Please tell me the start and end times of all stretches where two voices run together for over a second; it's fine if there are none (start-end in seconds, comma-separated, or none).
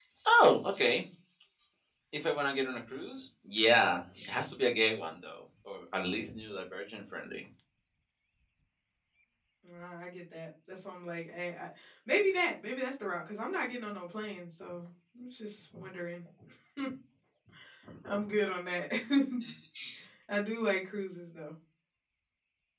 none